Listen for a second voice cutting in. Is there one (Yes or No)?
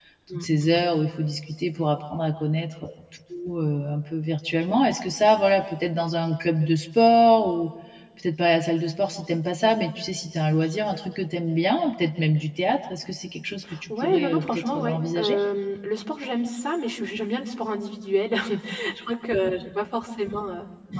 Yes